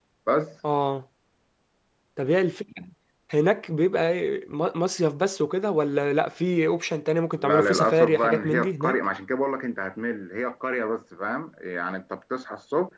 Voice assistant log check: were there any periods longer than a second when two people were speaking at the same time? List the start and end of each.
7.4-9.0

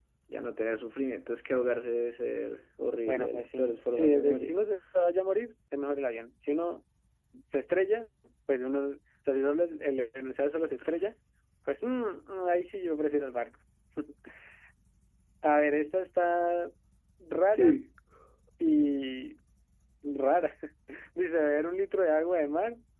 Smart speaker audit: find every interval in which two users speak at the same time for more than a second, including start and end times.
3.1-4.5

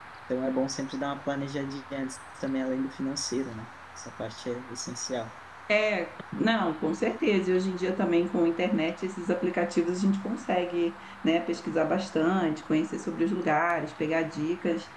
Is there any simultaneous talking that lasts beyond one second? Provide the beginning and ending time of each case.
none

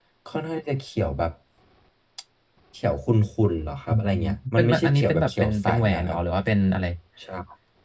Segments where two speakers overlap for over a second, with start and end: 4.6-6.2

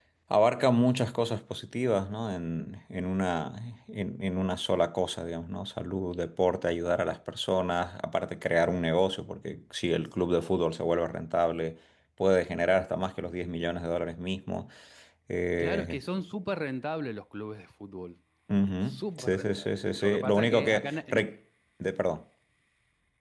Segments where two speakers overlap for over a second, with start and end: 18.9-21.2

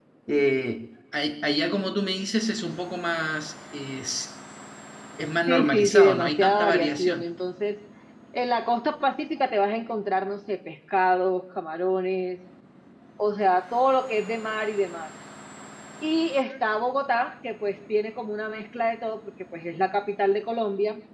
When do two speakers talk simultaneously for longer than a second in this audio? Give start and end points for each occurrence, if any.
5.5-7.3

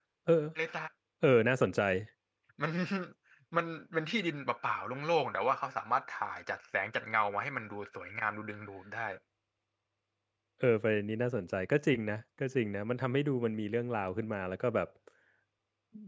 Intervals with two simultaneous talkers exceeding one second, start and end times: none

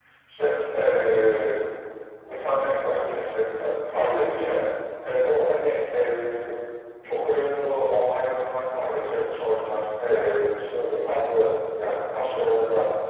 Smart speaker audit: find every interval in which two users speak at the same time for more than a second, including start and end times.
none

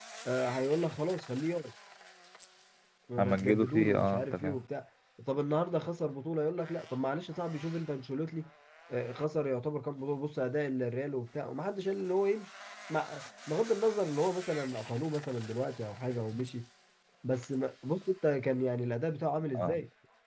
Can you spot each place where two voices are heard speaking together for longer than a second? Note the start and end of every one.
3.2-4.6

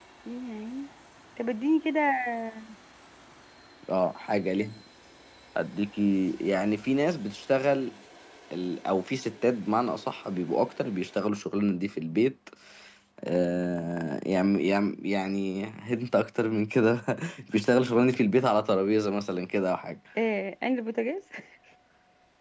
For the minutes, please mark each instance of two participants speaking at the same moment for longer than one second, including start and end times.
none

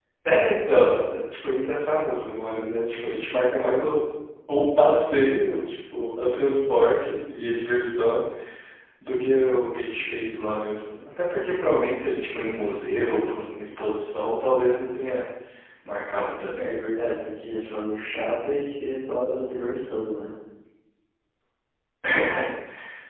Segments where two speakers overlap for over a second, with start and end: none

